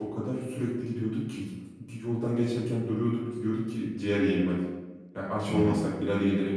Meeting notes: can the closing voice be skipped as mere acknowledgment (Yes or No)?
Yes